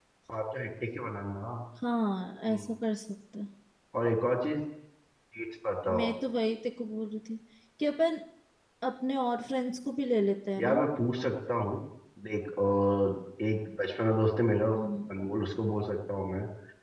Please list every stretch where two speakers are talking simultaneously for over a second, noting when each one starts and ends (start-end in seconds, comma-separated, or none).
none